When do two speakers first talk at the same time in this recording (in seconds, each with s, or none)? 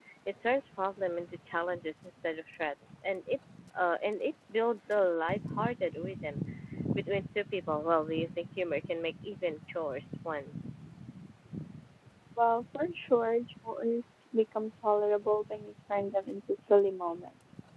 none